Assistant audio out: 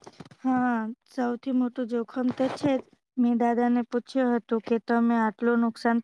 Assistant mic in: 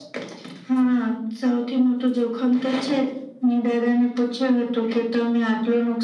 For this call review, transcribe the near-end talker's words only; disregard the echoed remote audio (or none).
none